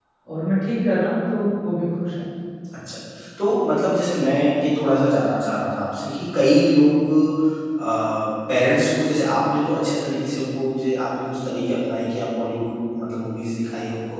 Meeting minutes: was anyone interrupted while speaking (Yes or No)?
No